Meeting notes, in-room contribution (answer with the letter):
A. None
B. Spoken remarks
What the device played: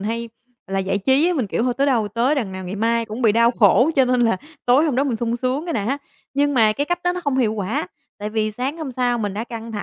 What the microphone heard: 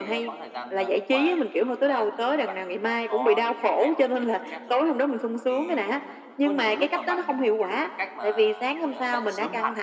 B